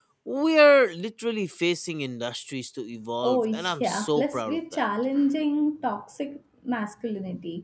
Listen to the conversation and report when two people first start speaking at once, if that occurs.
3.2 s

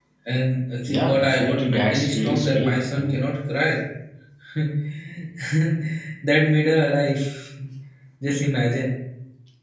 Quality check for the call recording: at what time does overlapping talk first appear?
0.9 s

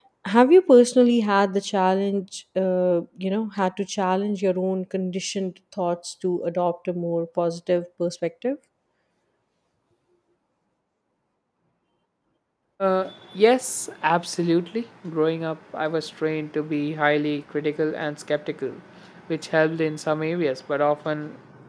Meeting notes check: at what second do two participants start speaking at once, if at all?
none

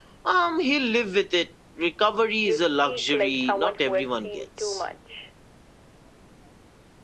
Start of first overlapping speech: 2.5 s

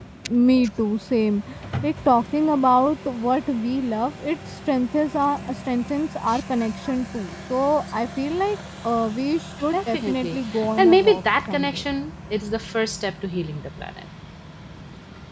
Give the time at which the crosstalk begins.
9.7 s

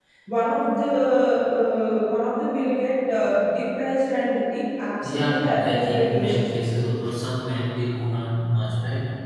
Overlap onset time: 5.0 s

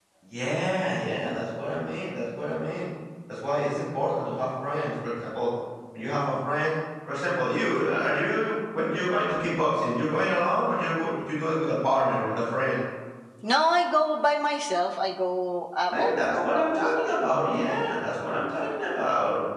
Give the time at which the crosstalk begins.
15.9 s

